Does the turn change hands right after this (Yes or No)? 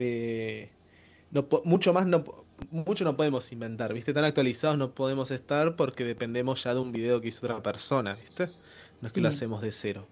No